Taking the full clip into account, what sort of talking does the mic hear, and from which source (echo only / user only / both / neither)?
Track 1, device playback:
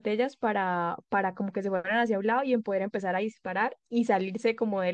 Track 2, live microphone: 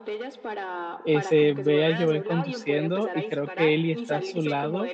both